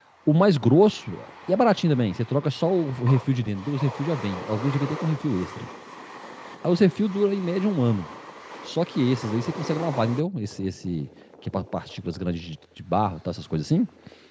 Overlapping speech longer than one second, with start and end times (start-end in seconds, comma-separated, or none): none